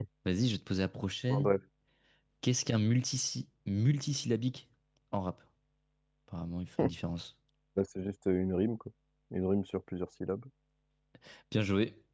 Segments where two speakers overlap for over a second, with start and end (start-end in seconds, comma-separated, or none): none